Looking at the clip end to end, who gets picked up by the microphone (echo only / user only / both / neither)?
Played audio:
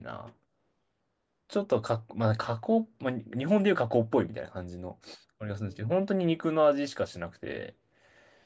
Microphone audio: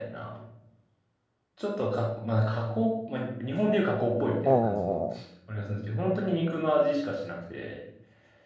both